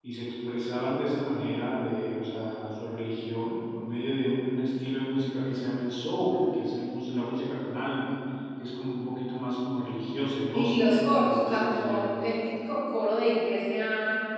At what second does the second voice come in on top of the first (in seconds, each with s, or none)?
10.5 s